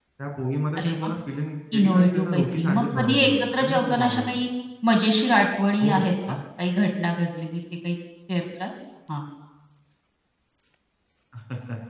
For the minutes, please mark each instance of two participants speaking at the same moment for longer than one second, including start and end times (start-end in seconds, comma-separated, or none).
1.8-4.4